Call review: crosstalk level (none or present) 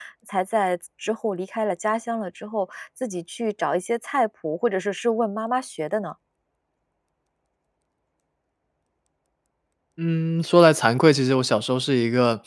none